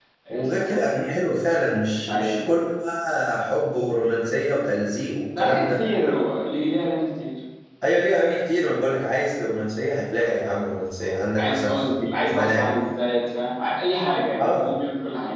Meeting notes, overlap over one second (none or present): present